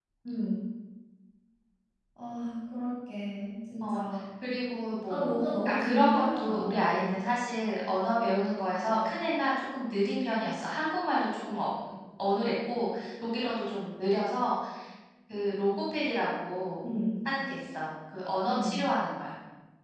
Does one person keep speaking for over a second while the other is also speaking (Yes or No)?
Yes